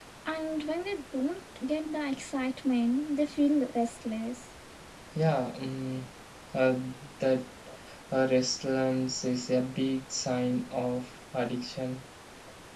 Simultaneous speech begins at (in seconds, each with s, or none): none